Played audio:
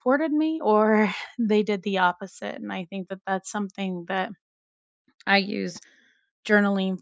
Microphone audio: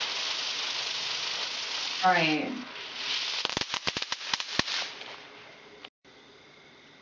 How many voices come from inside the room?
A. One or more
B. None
A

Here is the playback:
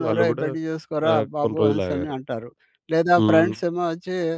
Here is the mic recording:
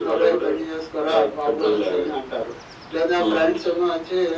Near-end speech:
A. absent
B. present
A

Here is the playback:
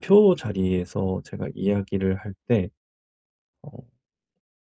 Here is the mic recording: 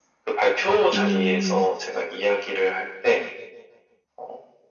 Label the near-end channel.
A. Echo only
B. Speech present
B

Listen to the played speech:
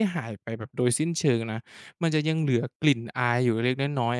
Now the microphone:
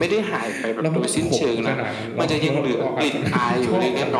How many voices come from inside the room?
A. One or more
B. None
A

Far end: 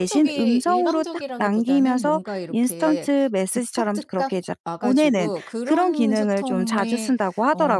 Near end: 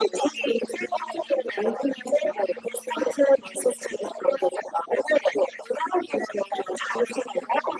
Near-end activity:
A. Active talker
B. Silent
B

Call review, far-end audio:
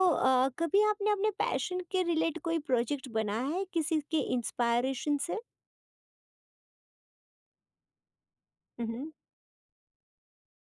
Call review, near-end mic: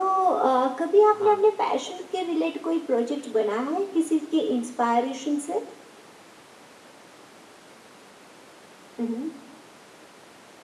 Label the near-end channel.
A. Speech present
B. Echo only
A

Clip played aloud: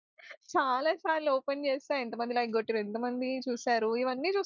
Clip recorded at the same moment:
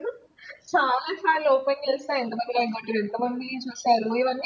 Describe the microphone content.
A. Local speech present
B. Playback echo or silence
B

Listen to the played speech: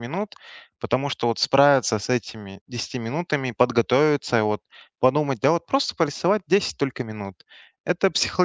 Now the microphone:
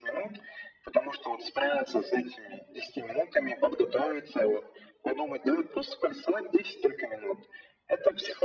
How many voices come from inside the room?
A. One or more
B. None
B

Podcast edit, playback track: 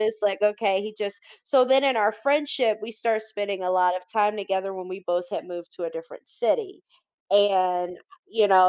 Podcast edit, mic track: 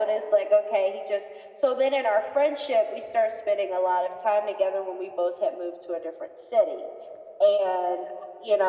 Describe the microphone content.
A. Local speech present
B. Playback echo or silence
B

